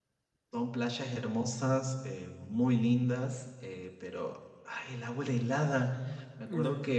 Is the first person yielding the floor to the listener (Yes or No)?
No